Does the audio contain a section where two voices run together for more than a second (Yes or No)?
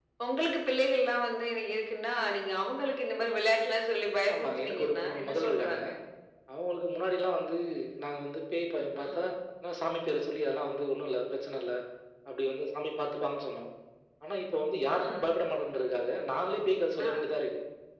Yes